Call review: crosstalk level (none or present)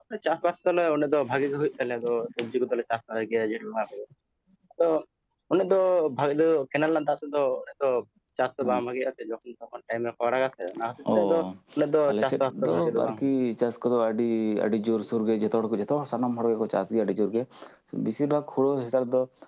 present